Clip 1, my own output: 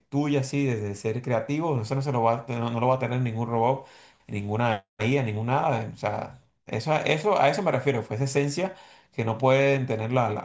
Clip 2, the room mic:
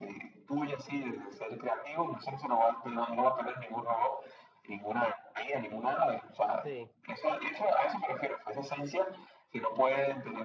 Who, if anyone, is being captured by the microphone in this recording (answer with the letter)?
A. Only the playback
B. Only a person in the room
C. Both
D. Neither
C